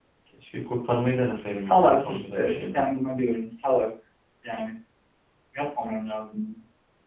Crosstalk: present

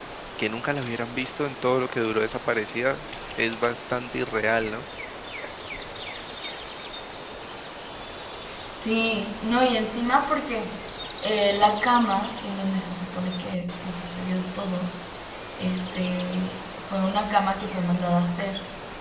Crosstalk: none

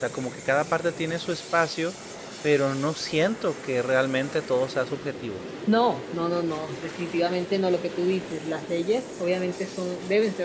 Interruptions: none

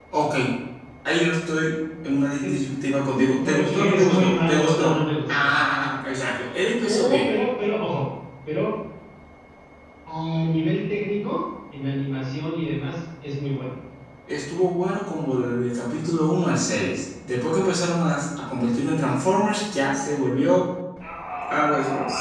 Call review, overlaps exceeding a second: present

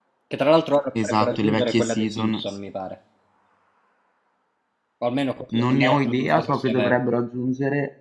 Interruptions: present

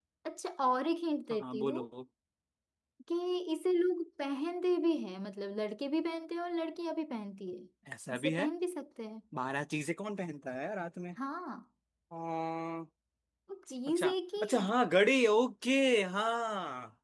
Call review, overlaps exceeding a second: none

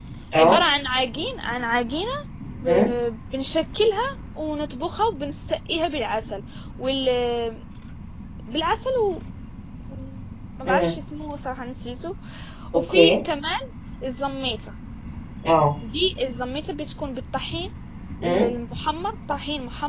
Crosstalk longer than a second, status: none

